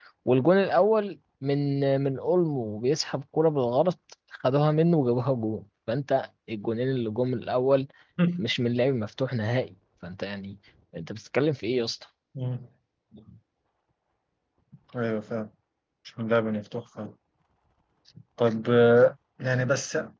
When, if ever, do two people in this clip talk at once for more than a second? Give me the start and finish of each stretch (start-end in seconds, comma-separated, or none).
none